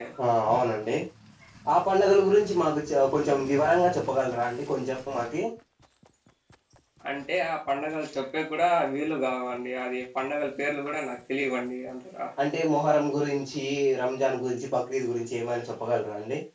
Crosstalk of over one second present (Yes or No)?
No